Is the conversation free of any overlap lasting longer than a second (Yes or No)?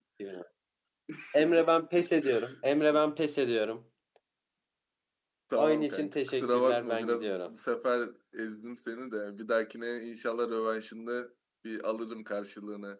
No